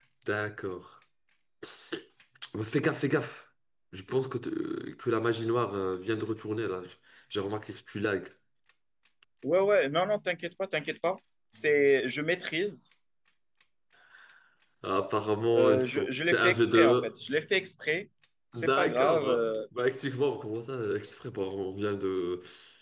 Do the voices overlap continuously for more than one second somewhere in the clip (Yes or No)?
Yes